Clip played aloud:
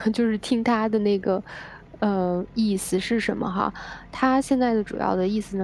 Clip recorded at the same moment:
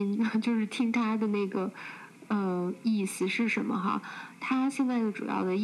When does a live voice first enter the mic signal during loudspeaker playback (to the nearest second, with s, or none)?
none